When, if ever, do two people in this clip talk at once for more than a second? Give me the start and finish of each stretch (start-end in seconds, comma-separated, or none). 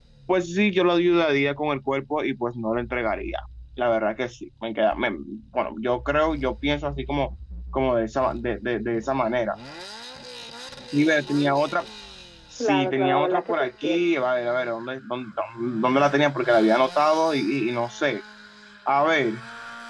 12.6-14.0